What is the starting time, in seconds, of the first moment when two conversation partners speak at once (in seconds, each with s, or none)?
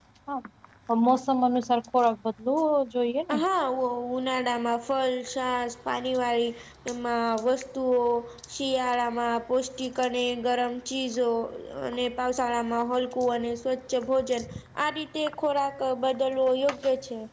none